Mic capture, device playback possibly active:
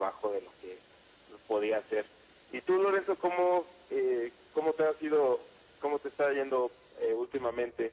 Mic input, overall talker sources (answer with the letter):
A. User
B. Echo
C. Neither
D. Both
B